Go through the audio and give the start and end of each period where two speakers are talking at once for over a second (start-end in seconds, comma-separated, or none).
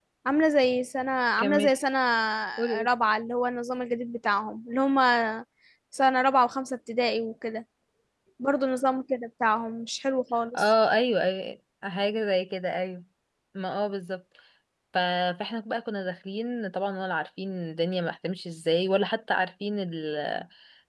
none